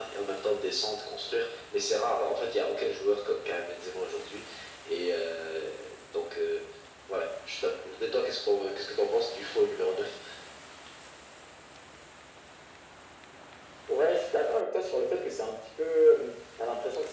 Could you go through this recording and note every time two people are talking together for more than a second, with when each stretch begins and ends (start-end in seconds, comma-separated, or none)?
none